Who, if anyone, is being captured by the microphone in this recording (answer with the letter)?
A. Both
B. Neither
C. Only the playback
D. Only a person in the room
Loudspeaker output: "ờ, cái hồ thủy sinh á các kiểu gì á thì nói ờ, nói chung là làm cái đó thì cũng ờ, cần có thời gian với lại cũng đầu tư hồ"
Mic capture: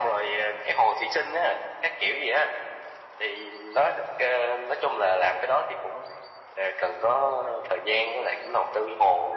C